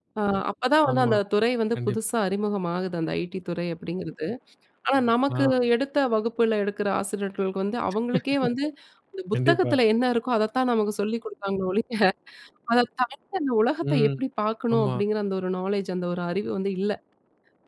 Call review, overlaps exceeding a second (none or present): none